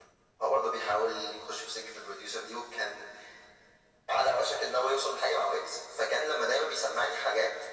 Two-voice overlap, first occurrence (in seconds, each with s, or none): none